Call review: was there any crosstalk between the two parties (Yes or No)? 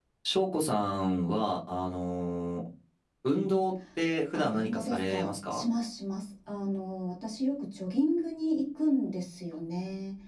Yes